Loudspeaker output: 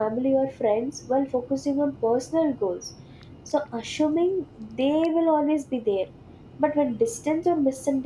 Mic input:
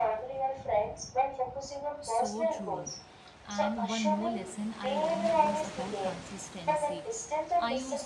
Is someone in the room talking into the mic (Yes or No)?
Yes